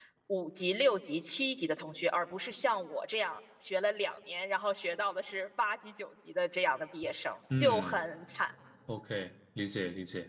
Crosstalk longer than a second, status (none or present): none